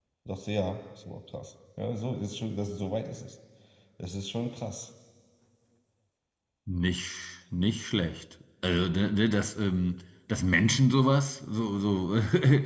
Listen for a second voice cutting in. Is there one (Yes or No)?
No